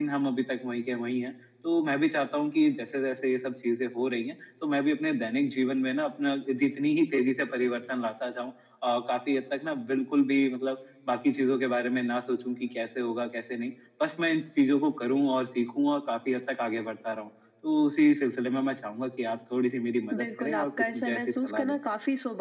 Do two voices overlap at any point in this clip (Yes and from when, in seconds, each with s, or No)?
Yes, from 20.1 s